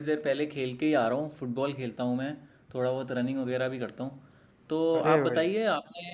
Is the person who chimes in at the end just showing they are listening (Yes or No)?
Yes